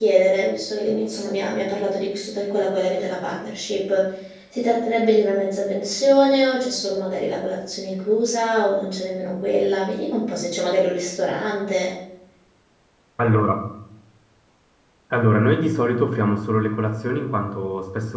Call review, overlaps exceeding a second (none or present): none